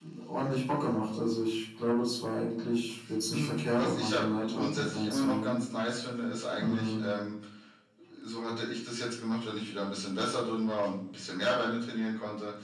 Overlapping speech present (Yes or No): Yes